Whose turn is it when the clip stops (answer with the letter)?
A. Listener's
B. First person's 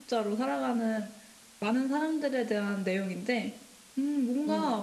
B